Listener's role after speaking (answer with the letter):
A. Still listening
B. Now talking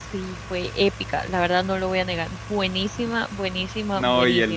B